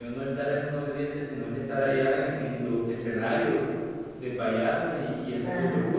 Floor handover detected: Yes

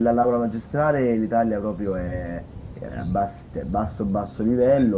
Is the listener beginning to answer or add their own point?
No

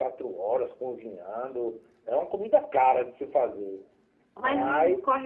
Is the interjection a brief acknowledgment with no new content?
No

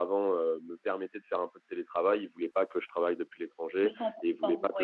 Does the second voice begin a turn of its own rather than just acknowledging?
No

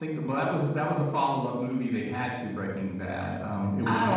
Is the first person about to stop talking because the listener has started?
No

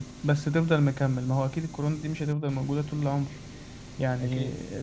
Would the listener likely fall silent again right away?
Yes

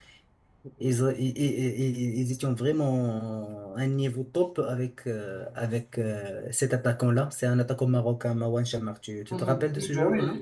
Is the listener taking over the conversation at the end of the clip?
Yes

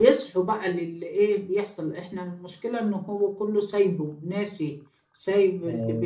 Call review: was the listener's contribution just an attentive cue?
Yes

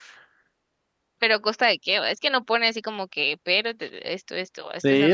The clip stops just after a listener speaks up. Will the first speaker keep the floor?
No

